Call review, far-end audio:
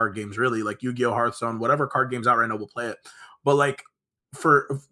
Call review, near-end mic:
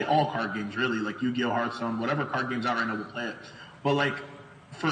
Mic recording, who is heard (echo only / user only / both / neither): echo only